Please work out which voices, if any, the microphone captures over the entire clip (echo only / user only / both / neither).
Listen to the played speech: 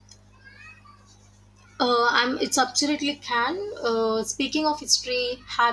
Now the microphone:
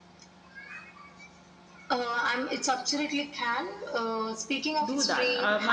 both